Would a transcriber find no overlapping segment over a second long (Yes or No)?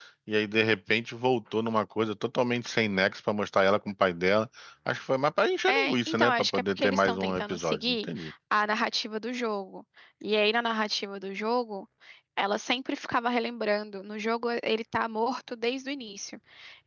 No